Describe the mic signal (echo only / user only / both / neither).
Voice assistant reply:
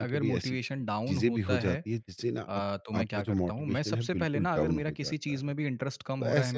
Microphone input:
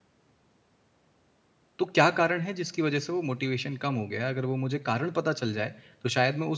user only